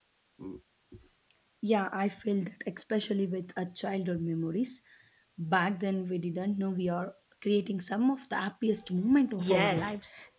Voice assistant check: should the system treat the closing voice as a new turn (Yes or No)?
Yes